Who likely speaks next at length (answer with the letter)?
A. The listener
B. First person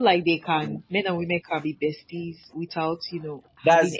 A